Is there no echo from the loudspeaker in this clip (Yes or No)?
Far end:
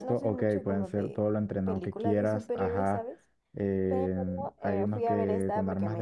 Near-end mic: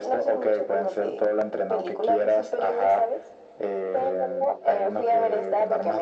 No